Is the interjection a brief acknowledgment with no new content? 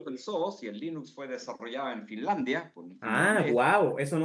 No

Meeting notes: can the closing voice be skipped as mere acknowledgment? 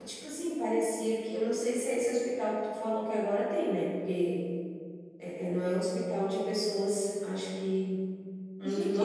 No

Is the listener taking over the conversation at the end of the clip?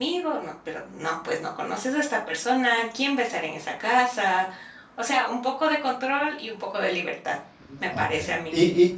Yes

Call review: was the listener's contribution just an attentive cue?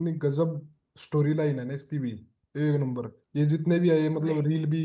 Yes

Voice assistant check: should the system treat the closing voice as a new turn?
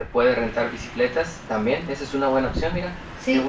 Yes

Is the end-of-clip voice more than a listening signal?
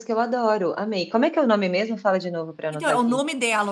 Yes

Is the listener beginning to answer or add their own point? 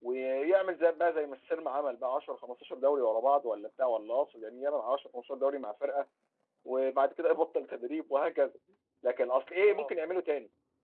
No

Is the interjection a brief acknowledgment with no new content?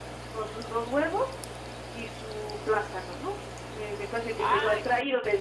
Yes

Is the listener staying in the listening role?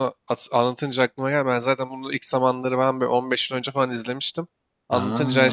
Yes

